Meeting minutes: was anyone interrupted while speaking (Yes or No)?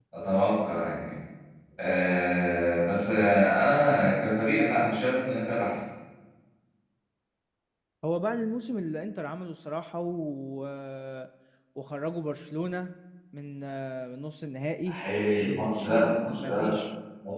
Yes